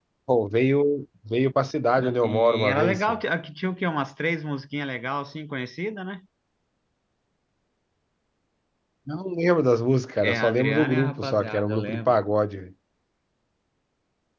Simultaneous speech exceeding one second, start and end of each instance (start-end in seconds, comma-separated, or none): 2.0-3.2, 10.2-12.2